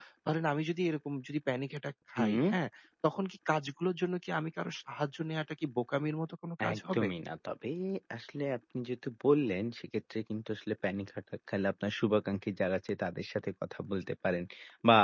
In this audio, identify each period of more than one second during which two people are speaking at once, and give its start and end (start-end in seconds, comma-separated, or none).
none